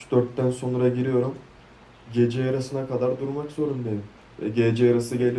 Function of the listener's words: listening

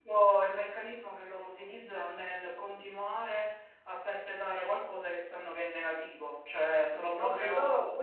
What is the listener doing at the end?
taking over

